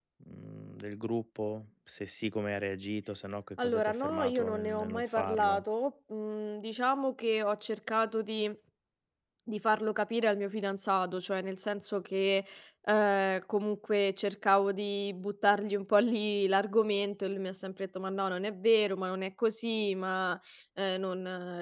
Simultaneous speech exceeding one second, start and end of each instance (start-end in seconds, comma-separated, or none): 3.6-5.6